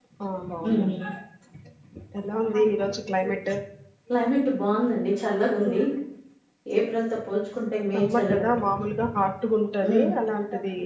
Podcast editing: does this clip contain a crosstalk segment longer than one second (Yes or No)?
No